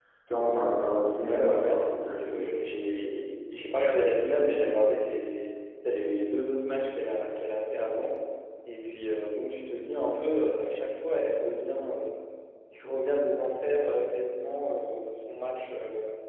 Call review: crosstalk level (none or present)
present